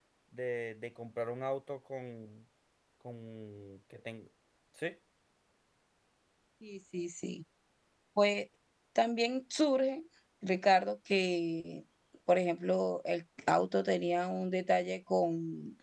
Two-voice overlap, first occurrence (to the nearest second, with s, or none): none